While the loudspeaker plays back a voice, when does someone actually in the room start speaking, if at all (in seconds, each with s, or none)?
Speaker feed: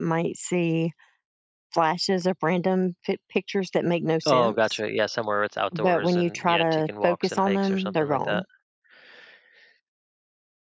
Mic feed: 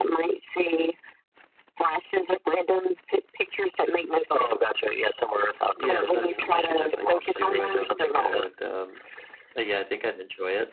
5.7 s